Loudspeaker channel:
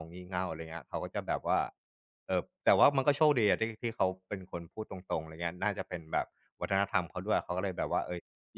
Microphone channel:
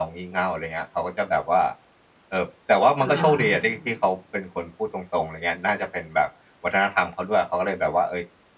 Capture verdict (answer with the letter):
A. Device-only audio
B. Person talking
B